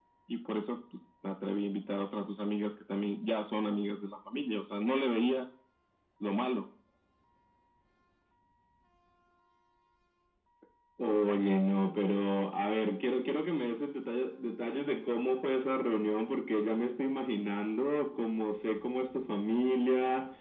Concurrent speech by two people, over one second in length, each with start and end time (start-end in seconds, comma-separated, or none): none